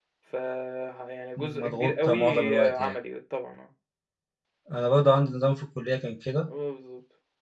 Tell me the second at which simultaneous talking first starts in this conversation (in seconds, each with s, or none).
1.6 s